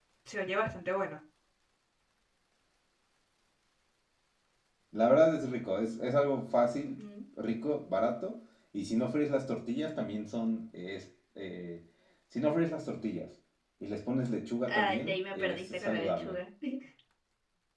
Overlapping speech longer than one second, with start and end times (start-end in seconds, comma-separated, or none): 14.7-16.4